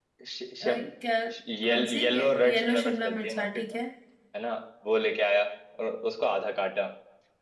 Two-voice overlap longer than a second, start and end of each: 1.6-3.8

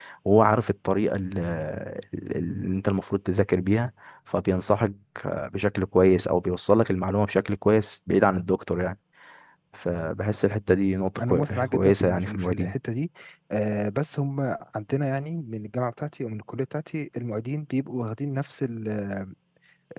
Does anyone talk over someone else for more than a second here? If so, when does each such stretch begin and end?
11.2-12.7

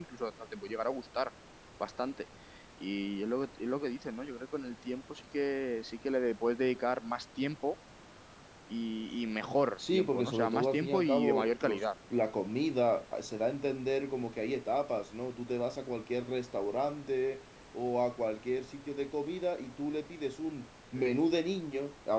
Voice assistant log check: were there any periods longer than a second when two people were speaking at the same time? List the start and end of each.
9.9-11.8

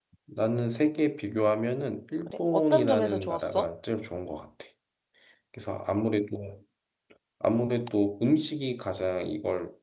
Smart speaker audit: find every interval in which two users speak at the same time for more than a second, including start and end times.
2.3-3.7

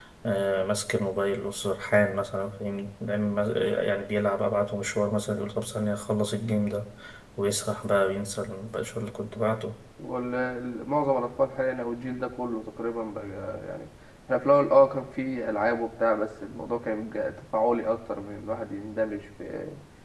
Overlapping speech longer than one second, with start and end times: none

